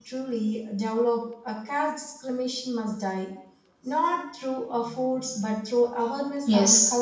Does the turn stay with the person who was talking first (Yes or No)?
No